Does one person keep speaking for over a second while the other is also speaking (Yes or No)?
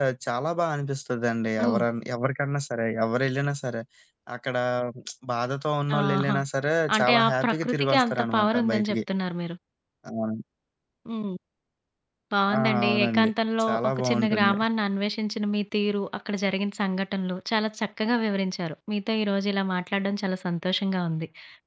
Yes